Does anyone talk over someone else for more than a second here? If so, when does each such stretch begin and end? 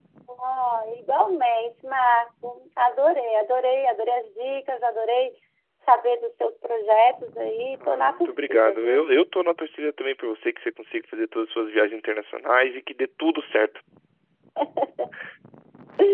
7.9-9.1

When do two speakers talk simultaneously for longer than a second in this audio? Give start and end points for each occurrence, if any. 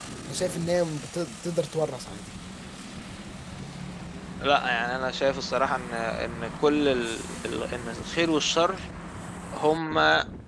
none

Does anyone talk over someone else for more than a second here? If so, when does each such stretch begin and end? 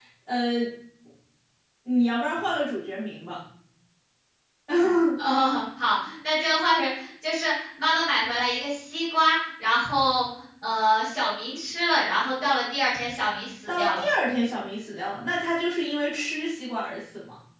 none

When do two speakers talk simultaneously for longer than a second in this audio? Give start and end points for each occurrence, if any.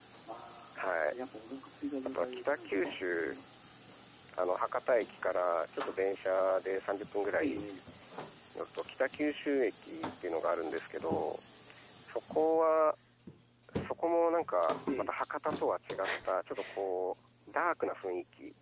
2.1-3.3

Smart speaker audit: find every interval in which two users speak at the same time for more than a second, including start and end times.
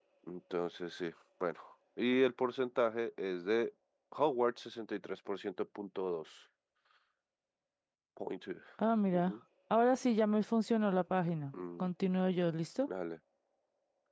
none

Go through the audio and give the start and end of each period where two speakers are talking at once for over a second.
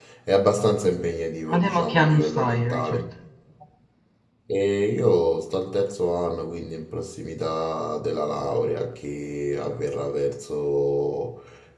1.5-3.0

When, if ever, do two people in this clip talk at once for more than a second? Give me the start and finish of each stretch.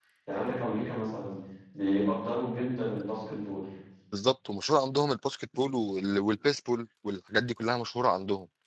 none

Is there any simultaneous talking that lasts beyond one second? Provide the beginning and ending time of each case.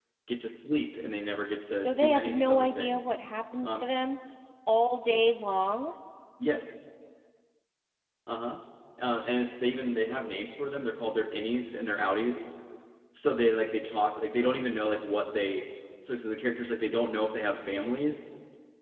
1.8-3.1

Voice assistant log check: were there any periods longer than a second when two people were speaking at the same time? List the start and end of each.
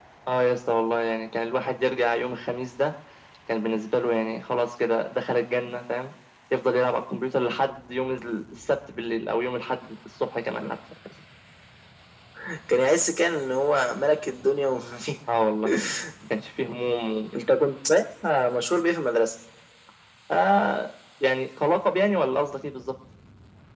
none

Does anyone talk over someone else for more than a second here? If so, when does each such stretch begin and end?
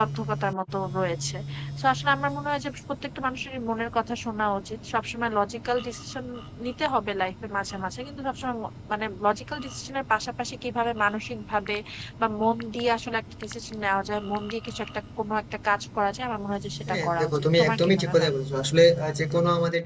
16.9-18.3

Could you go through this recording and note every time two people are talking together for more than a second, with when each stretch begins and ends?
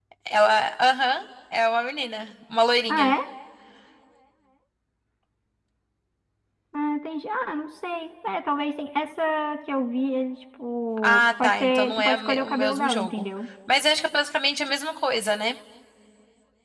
11.0-13.1

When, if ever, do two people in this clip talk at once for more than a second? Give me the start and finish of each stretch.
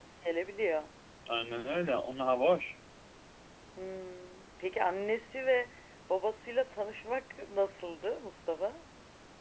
none

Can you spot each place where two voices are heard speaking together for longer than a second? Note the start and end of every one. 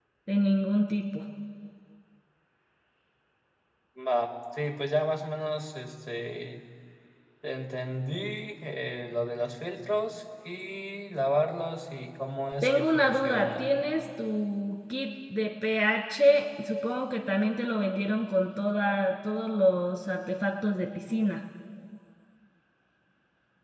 12.6-13.8

